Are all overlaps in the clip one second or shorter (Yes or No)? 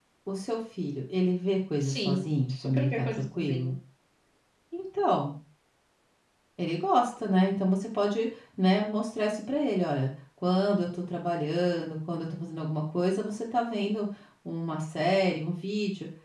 No